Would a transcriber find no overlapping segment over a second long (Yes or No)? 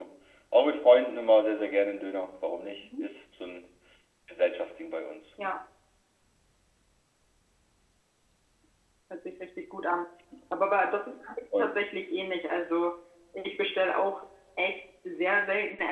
Yes